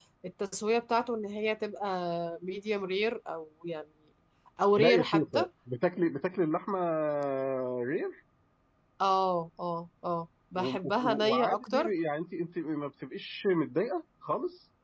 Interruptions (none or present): present